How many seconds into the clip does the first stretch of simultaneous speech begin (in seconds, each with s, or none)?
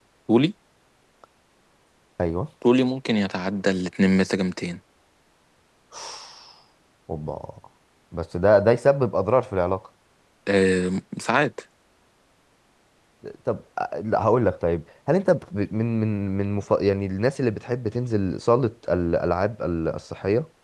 none